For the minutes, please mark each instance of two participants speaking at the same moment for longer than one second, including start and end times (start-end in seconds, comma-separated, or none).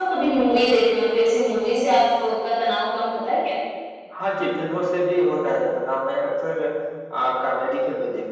none